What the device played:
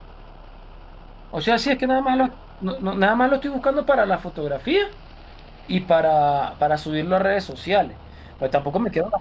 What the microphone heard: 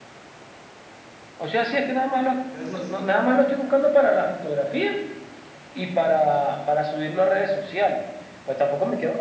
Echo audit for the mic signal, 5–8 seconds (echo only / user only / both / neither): echo only